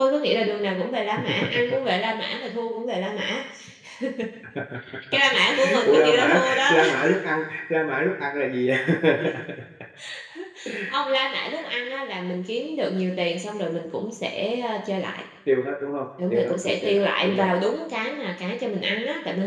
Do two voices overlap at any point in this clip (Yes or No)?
Yes